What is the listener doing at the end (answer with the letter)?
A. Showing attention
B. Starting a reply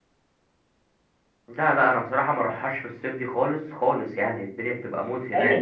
B